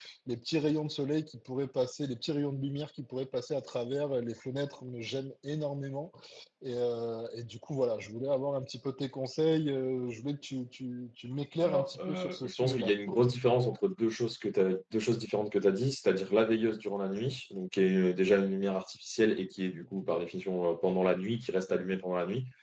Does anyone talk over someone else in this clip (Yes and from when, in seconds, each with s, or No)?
Yes, from 11.6 s